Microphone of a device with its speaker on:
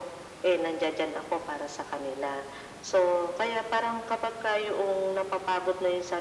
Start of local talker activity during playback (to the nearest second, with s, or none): none